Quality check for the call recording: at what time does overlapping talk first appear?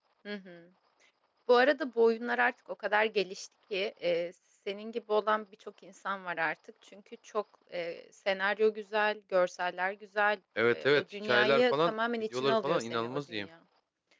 10.6 s

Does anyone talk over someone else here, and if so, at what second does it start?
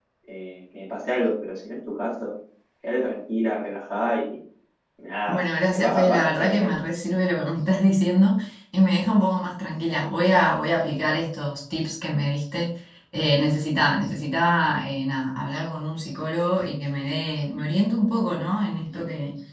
5.3 s

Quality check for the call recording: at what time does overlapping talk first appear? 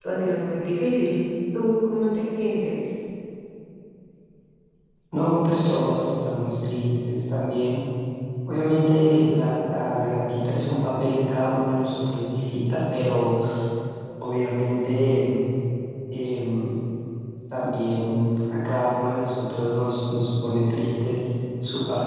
none

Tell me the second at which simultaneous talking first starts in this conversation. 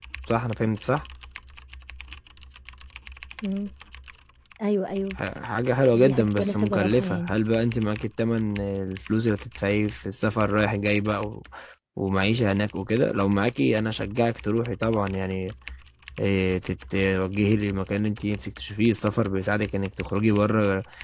5.9 s

